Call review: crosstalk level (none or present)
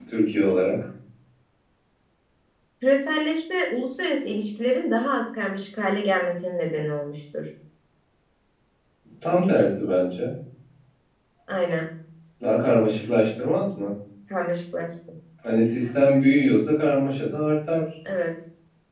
none